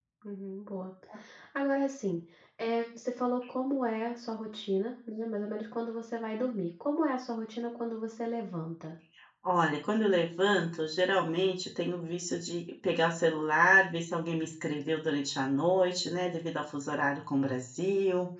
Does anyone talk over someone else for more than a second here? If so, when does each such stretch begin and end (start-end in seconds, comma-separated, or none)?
none